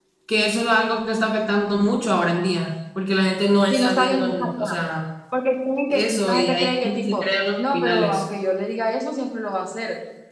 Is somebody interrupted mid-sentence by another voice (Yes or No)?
Yes